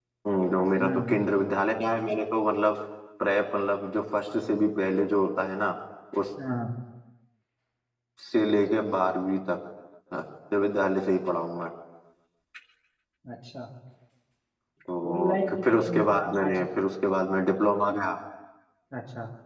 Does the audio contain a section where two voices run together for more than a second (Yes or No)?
Yes